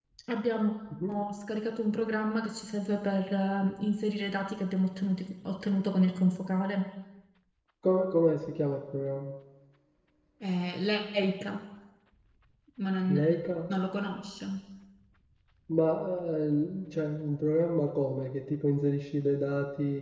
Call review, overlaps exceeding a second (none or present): none